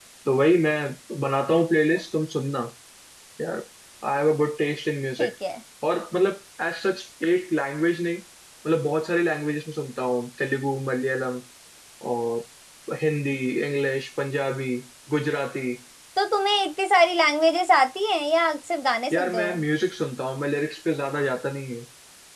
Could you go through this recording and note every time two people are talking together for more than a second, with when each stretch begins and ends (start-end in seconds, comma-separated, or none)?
none